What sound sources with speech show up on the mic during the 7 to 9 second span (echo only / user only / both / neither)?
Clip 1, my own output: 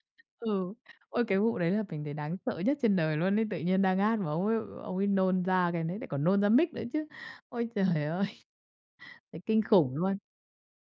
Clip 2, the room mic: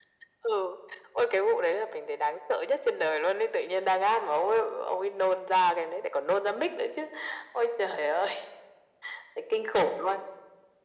echo only